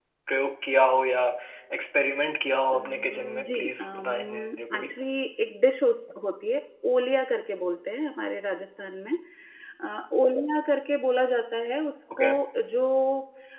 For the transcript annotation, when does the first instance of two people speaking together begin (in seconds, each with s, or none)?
2.7 s